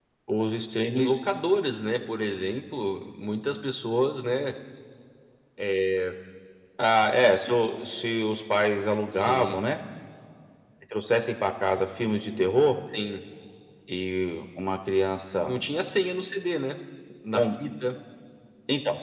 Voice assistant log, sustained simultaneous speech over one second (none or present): none